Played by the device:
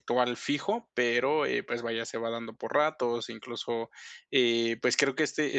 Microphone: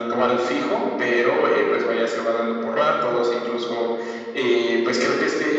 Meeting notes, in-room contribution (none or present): none